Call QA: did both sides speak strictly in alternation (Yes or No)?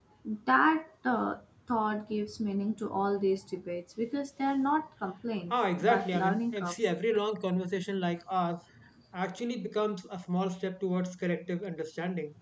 No